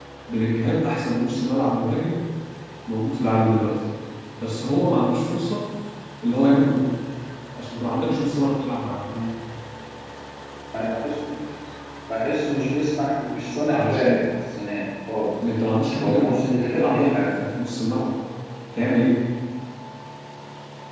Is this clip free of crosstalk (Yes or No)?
No